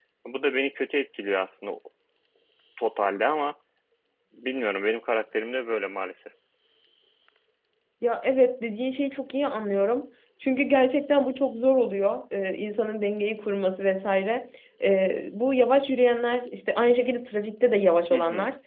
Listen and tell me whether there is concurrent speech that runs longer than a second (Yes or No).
No